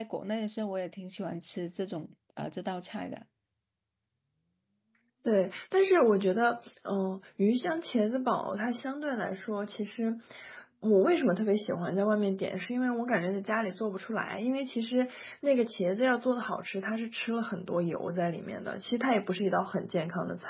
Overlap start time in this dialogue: none

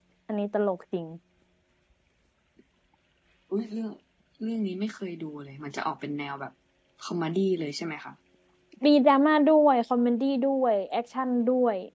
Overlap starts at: none

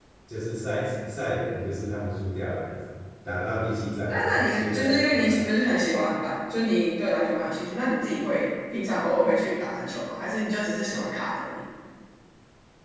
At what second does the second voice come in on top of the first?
4.1 s

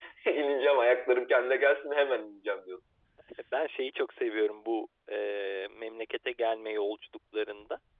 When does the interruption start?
none

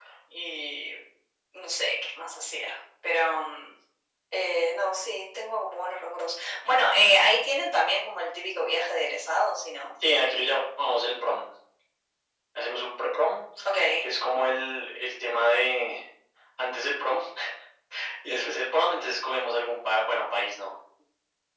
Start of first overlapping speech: none

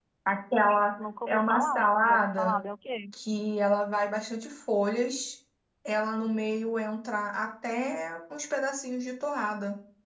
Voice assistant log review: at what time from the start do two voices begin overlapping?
1.2 s

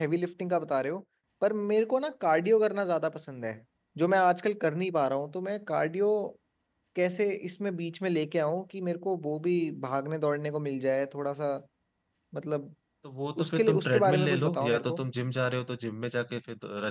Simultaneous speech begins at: 13.4 s

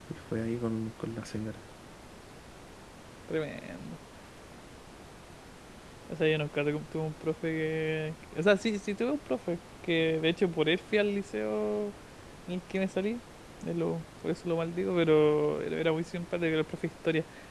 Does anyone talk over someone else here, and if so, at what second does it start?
none

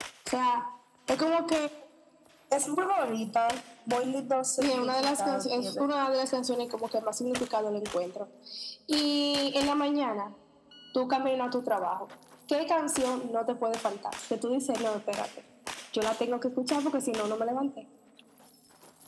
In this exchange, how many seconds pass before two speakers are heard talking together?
4.6 s

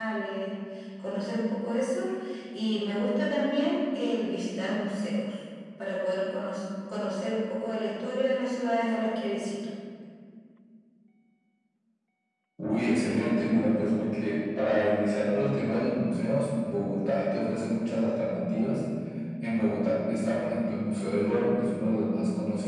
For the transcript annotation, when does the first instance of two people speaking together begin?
none

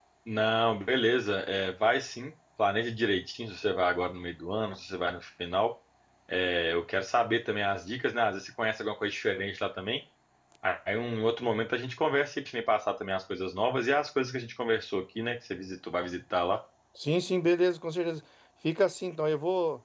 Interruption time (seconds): none

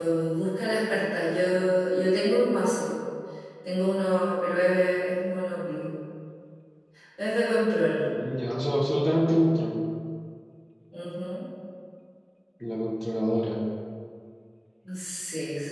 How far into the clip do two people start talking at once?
none

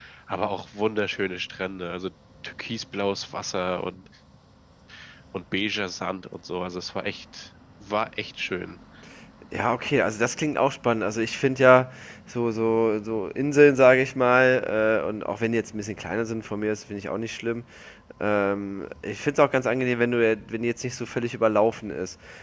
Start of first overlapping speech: none

